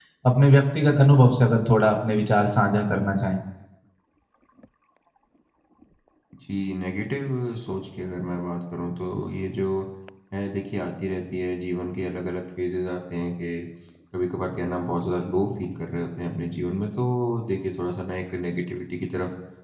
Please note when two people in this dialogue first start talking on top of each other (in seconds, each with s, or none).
none